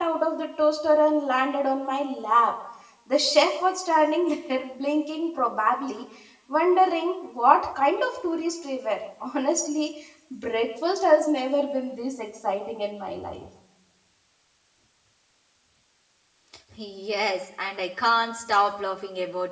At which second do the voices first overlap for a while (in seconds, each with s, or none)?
none